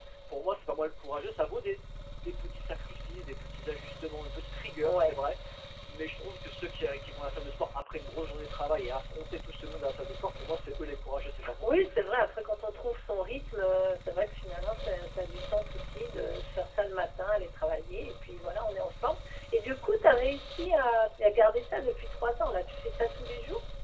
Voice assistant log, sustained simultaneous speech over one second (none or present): none